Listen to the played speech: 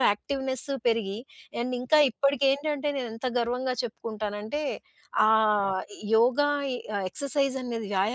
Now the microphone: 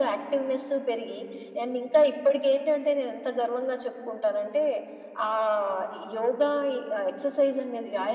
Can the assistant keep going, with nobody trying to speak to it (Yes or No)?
Yes